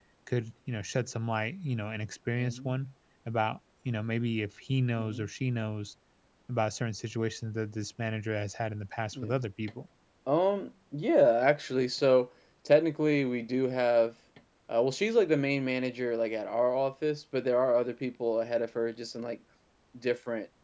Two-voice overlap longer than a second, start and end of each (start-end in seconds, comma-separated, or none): none